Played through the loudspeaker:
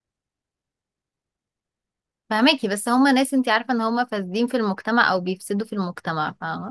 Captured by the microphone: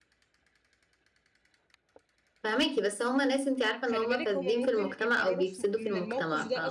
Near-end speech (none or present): present